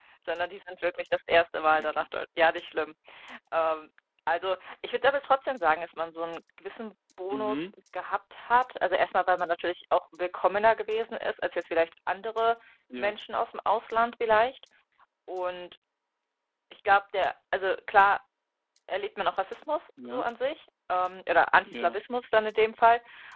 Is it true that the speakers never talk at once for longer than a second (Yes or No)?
Yes